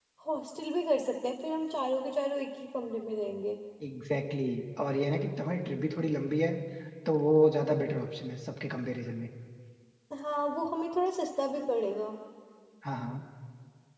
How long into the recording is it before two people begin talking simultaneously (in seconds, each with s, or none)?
none